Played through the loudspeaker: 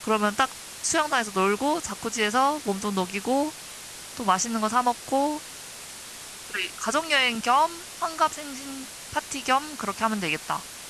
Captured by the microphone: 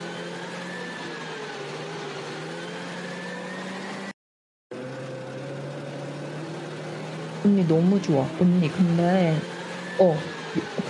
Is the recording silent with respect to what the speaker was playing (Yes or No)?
Yes